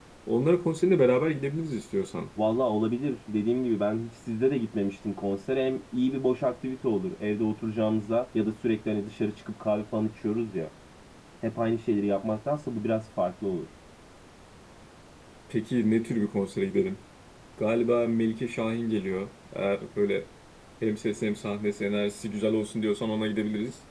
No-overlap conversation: Yes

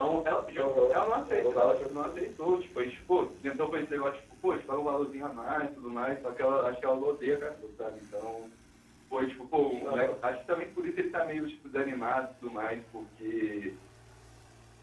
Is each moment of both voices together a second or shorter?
No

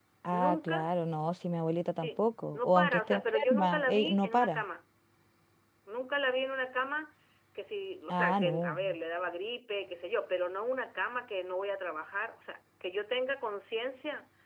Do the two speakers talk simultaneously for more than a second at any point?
Yes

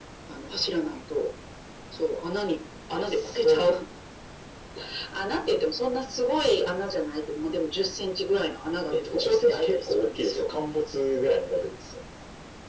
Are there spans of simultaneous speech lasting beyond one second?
Yes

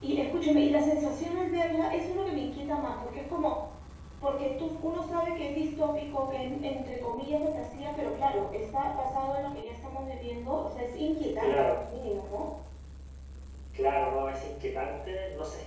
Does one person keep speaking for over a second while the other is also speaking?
No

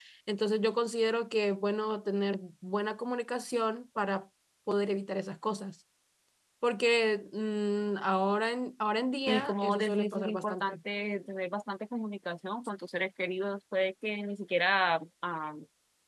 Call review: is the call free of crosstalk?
No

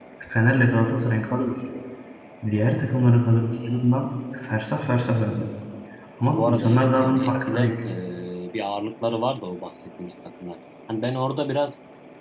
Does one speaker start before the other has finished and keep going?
Yes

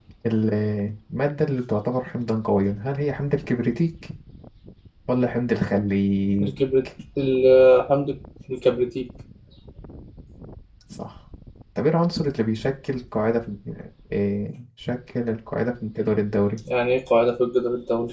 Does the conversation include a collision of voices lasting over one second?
No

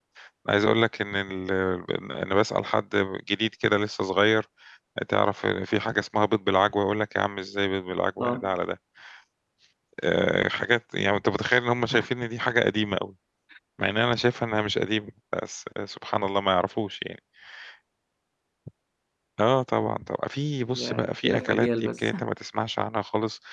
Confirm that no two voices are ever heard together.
No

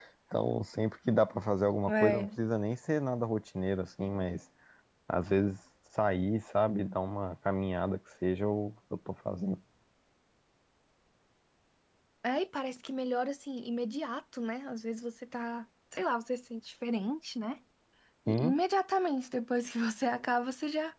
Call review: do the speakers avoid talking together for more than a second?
Yes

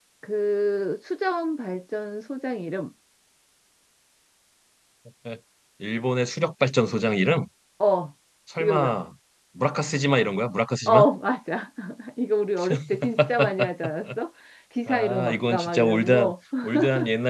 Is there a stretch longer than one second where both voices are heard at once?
Yes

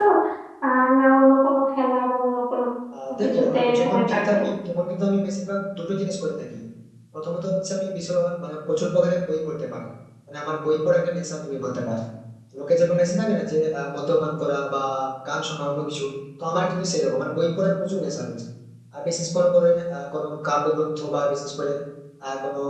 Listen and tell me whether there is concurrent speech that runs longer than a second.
Yes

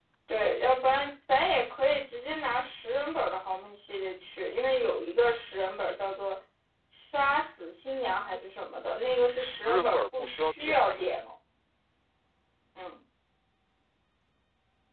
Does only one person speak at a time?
No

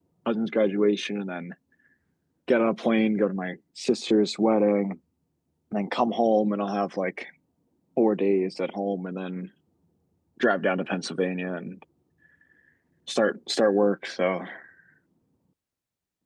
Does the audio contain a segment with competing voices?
No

